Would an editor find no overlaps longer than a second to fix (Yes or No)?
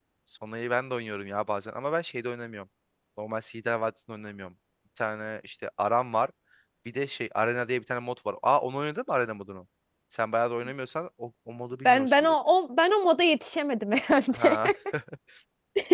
Yes